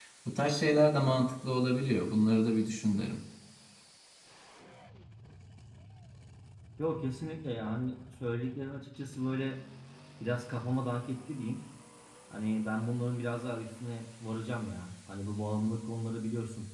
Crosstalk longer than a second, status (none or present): none